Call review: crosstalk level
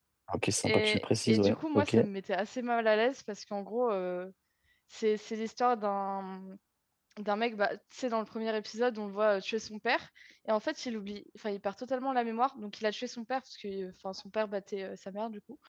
present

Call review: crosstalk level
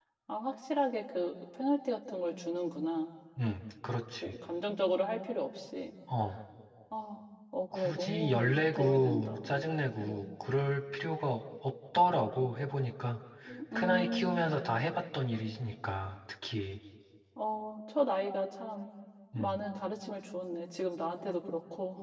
present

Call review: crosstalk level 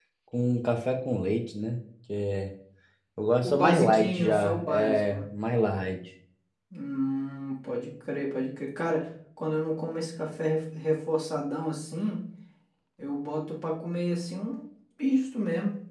present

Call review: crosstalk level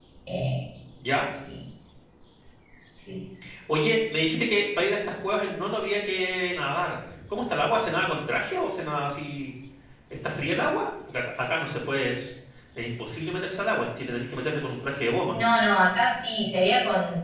none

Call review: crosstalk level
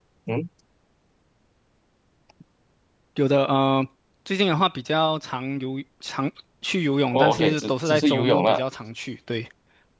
present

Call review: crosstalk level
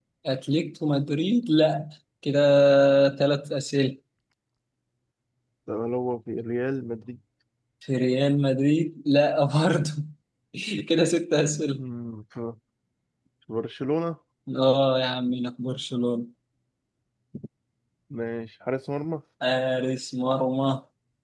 none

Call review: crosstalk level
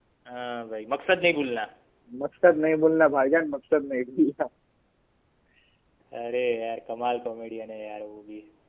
none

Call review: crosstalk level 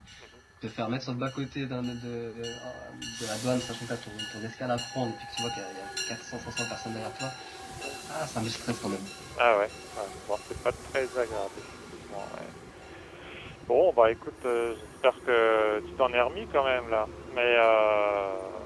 none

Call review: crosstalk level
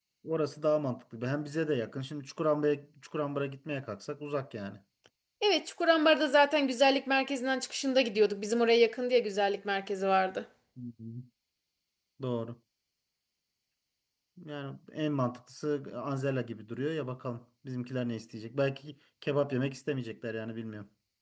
none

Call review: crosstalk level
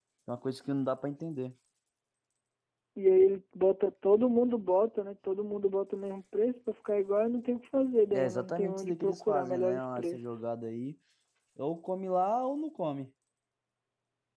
present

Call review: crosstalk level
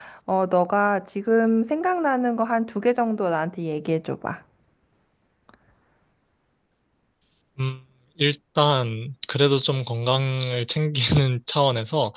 none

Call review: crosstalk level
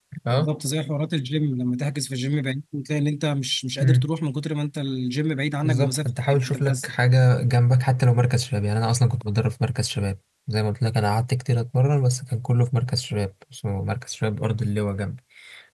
present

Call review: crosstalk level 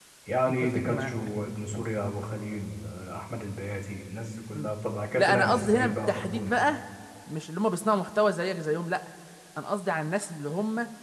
present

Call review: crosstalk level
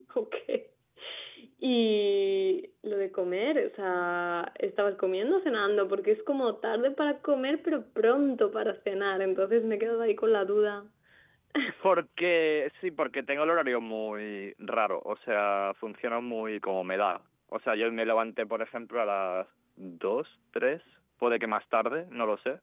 none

